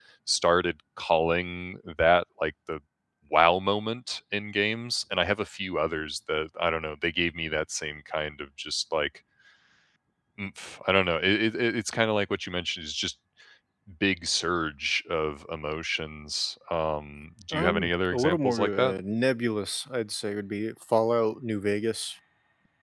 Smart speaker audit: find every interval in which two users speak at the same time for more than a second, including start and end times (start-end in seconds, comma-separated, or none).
17.5-18.9